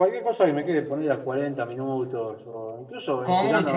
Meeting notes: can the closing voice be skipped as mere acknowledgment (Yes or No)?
Yes